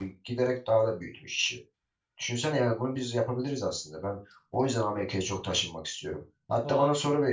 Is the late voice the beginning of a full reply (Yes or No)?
No